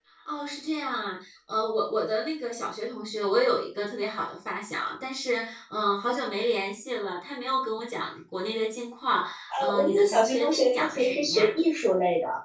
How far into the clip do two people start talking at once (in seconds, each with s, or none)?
9.6 s